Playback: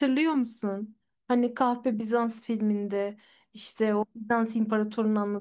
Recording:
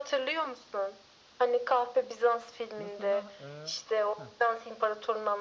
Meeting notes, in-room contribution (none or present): present